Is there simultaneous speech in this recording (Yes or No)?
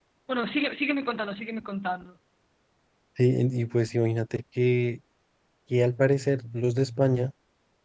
No